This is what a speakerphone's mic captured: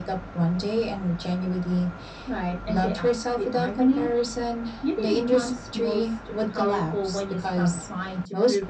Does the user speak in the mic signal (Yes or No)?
No